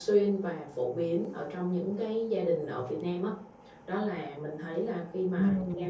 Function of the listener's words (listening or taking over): listening